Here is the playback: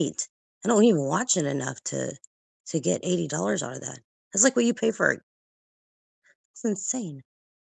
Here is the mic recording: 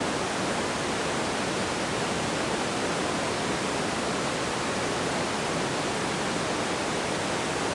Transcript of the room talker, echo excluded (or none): none